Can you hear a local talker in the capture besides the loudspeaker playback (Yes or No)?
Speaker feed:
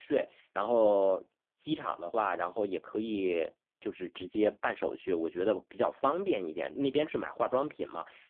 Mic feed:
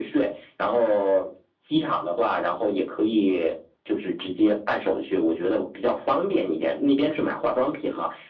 No